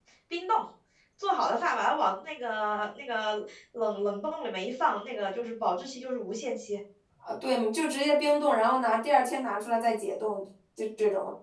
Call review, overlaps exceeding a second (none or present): none